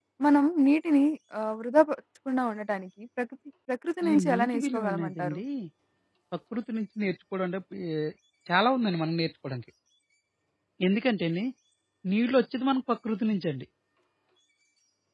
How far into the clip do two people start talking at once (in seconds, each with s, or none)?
4.0 s